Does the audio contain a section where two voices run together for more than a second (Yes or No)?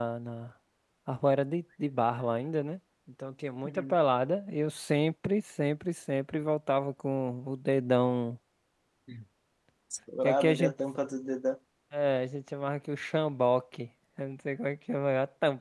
No